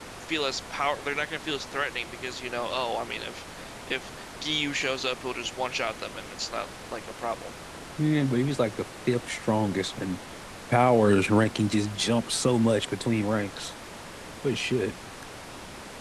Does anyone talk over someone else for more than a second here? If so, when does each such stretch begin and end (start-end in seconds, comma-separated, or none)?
none